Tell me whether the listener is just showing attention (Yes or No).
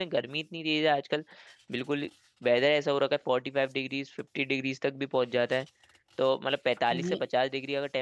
Yes